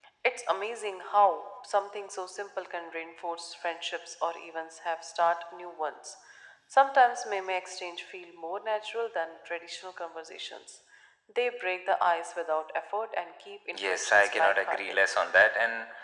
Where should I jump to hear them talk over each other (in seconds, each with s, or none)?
13.7 s